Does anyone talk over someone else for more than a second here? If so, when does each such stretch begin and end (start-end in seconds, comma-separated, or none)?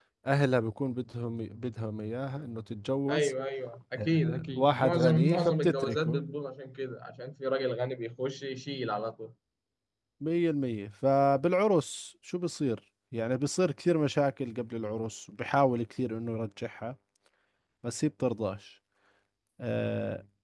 4.0-6.2